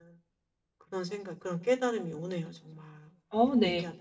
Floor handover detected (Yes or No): Yes